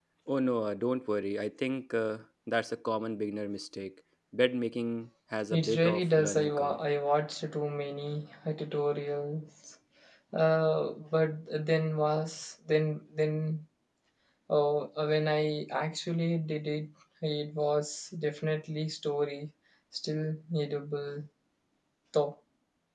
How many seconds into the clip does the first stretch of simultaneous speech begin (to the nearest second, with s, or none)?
6 s